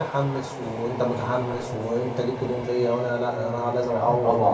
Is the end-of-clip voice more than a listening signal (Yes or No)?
Yes